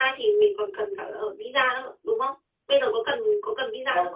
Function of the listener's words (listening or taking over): taking over